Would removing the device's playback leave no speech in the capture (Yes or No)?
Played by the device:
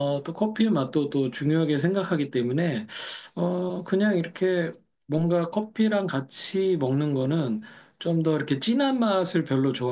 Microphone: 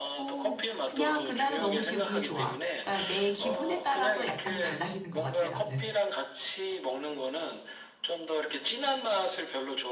No